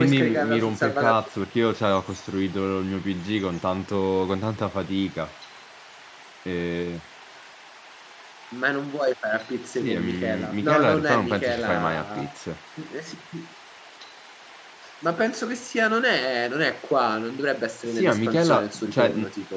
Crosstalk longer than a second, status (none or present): present